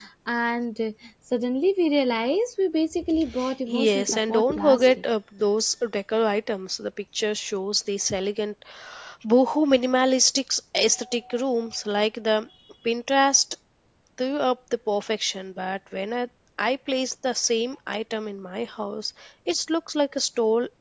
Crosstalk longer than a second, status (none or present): present